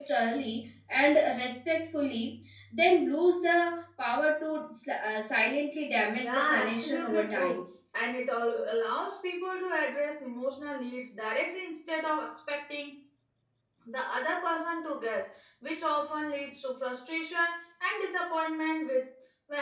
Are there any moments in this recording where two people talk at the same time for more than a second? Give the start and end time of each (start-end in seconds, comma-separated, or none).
6.2-7.6